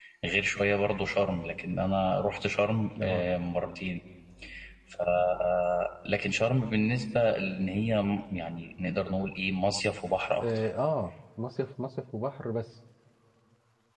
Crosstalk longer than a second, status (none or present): none